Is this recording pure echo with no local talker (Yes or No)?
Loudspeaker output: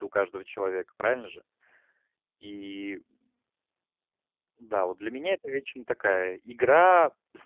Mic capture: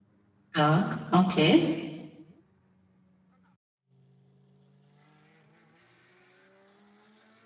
No